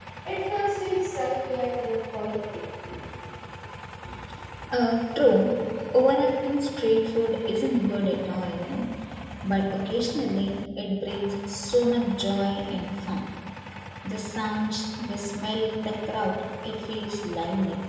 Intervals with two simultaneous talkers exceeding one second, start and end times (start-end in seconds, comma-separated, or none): none